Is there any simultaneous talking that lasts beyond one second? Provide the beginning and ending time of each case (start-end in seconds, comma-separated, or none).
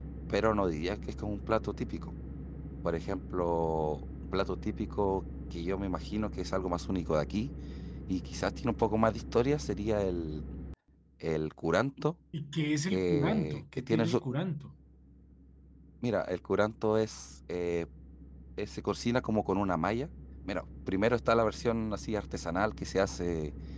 12.9-14.2